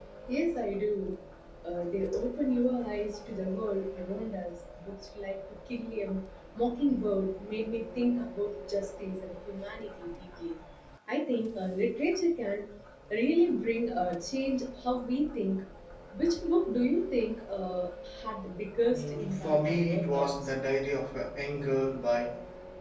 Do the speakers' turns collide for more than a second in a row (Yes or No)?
Yes